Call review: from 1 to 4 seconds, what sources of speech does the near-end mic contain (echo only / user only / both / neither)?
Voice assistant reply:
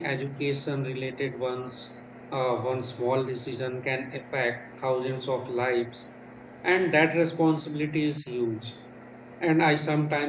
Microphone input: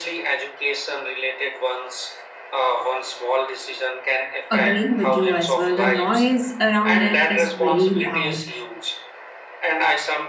echo only